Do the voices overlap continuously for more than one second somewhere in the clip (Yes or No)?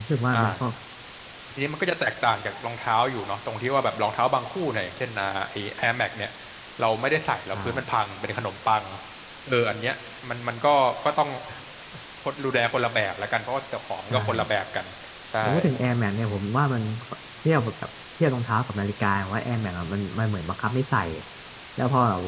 No